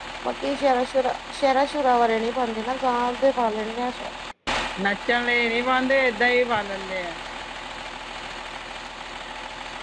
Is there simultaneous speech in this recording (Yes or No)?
No